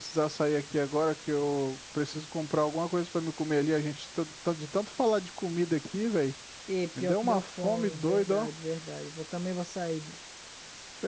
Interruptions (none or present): present